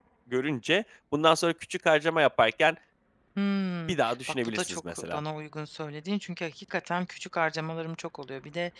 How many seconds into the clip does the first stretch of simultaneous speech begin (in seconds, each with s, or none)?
3.9 s